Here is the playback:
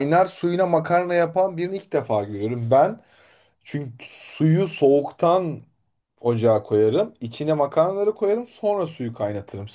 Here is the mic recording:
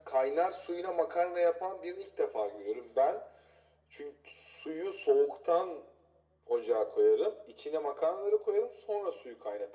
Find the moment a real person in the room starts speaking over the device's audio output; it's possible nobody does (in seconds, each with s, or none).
none